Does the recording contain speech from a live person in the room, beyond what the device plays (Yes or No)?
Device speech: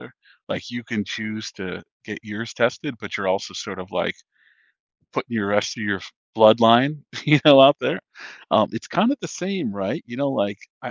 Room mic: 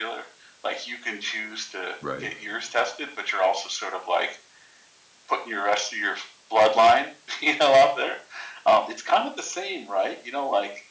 Yes